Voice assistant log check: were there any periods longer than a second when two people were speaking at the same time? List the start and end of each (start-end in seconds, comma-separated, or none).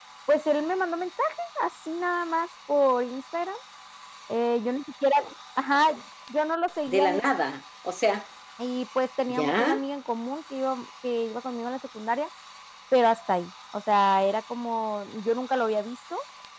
none